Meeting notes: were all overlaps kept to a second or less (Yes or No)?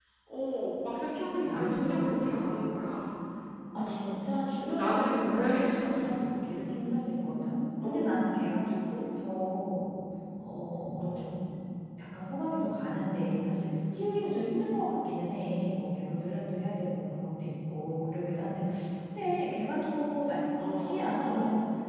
No